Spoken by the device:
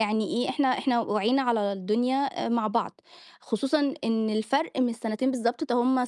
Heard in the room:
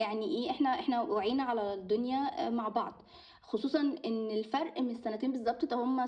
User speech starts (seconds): none

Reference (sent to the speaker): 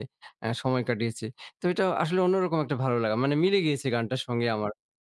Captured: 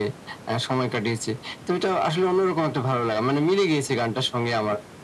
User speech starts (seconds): none

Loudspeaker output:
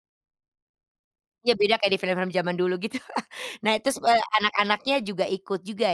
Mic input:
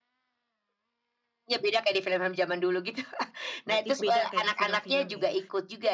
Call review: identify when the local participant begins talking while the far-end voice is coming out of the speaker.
4 s

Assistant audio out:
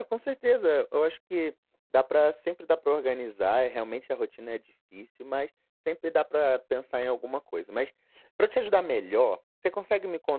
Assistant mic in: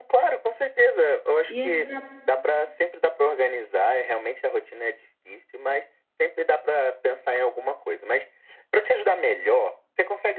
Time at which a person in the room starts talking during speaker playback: 1 s

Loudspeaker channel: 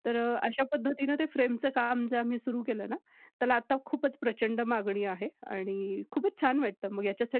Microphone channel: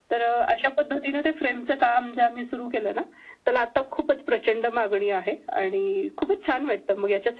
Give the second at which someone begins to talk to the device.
none

